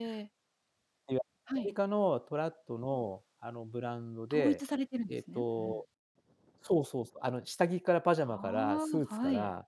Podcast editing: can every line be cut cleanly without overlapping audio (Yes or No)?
No